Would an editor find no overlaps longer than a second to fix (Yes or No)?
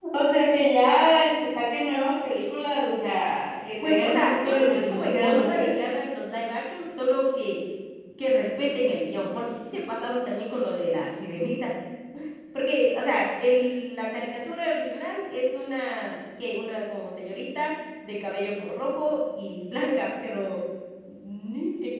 No